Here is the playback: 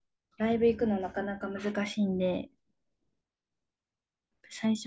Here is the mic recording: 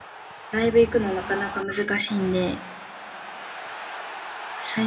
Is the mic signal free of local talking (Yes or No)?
Yes